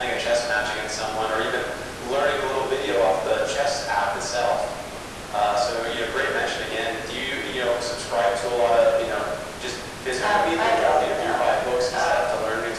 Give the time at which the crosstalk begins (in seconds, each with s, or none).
10.2 s